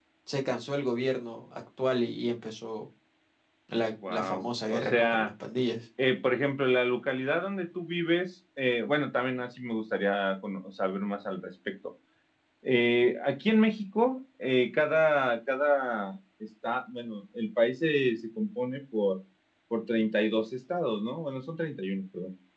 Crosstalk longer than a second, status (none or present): present